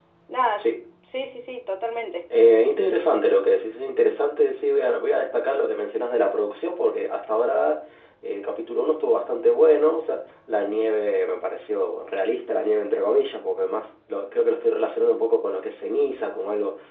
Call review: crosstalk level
none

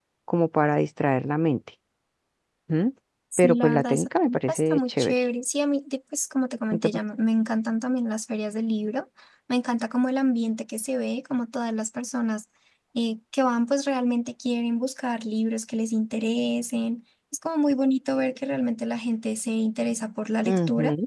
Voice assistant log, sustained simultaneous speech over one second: present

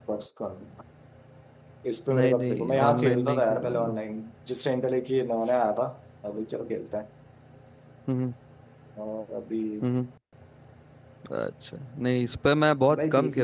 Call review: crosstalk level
present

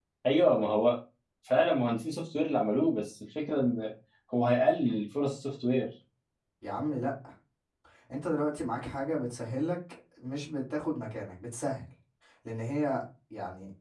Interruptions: none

